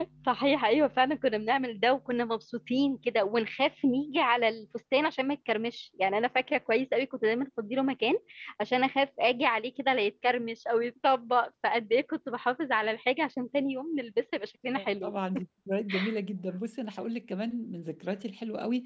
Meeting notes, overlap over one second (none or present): none